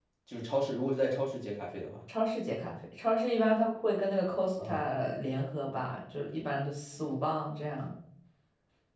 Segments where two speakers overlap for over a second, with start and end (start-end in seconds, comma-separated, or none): none